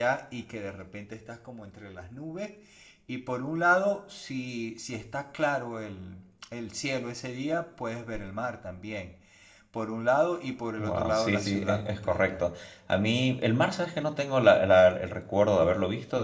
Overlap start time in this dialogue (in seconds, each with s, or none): 10.8 s